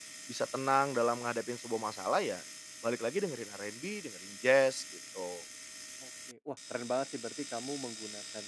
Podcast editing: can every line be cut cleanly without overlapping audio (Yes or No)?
Yes